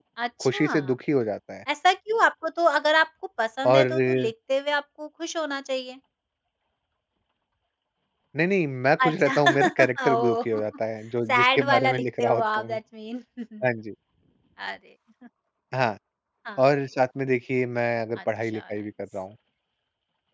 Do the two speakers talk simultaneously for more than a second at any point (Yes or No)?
Yes